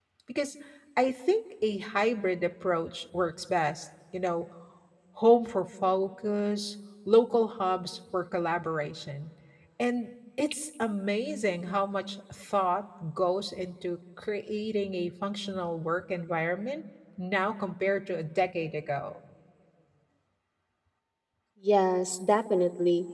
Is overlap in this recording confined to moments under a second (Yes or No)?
Yes